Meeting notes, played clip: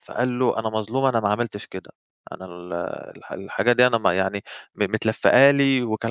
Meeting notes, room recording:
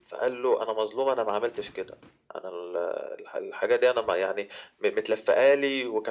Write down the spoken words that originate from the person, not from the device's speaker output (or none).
none